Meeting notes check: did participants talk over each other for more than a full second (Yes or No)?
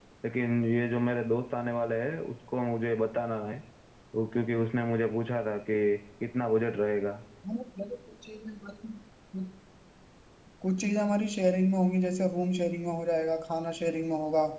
No